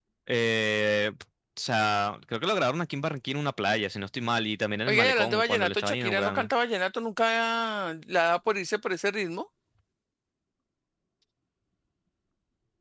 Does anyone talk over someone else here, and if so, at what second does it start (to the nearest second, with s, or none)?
5 s